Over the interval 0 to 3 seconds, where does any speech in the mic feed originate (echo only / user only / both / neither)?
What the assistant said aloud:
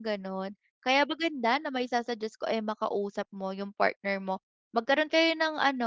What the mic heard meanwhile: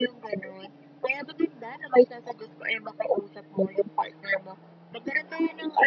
echo only